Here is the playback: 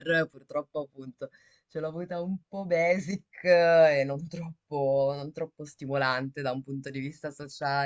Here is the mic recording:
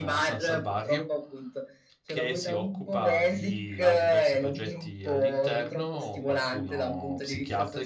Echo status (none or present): present